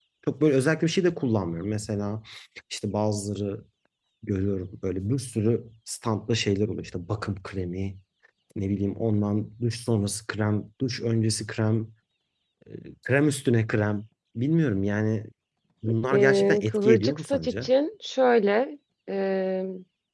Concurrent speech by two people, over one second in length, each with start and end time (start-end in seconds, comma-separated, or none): 16.1-17.7